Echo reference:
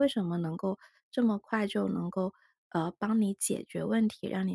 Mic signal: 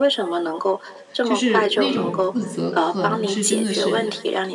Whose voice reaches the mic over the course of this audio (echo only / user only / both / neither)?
both